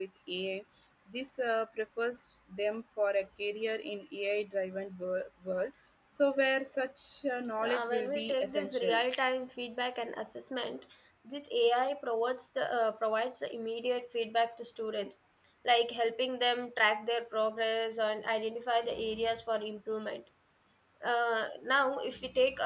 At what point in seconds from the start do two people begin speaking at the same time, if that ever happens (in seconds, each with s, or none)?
7.6 s